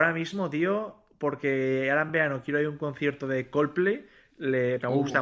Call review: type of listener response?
listening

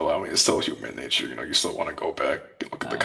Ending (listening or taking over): taking over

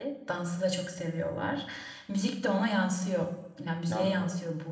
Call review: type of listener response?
listening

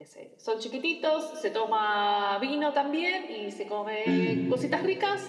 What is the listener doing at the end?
listening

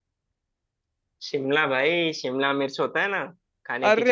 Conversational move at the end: taking over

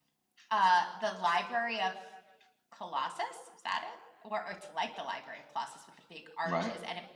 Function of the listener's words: listening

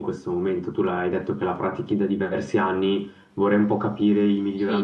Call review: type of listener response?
taking over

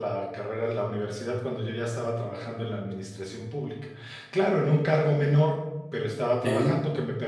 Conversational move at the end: listening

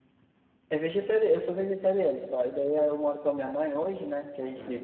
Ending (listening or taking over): listening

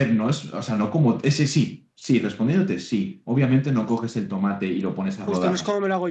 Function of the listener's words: taking over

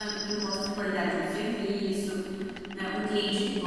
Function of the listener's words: listening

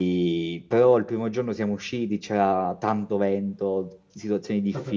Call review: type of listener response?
listening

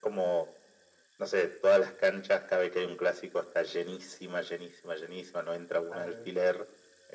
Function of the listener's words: listening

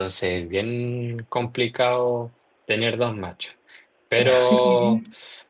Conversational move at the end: listening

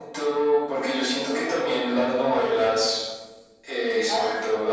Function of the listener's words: listening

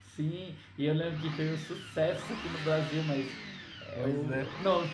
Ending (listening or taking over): listening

